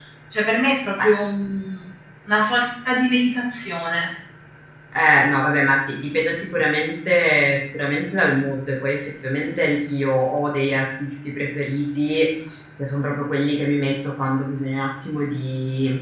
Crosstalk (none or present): none